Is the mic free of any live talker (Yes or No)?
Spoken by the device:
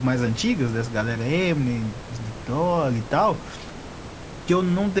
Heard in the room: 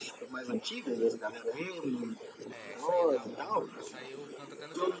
No